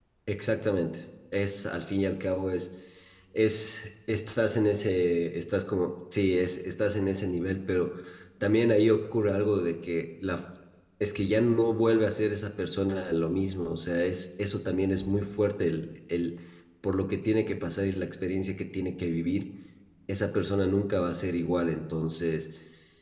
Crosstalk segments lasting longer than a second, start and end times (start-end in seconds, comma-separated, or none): none